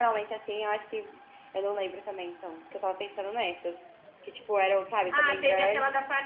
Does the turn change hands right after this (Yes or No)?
Yes